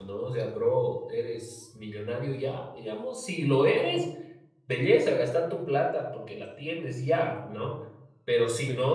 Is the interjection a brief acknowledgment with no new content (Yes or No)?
Yes